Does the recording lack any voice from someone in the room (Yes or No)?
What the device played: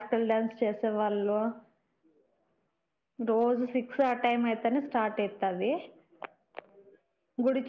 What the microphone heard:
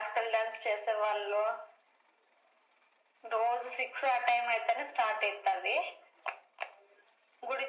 Yes